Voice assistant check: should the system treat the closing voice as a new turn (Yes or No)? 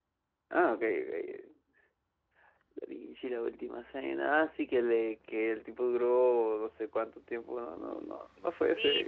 Yes